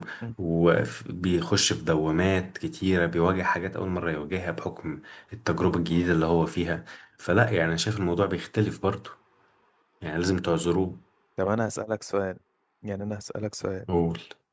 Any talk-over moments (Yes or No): No